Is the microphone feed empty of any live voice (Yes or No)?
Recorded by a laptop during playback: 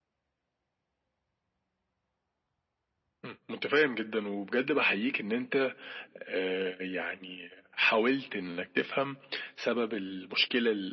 Yes